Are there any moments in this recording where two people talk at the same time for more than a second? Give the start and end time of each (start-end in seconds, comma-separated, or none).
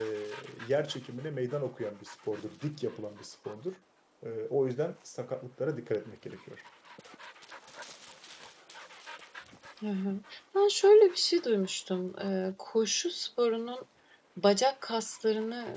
none